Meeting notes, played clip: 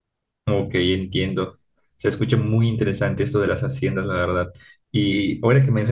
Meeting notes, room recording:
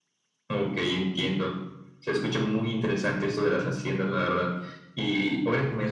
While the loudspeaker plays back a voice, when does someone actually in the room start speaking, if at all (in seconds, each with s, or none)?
none